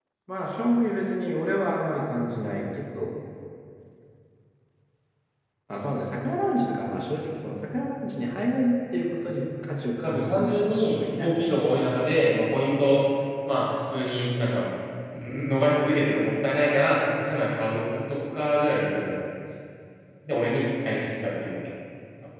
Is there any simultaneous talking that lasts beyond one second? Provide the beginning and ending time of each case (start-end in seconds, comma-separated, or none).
10.0-12.1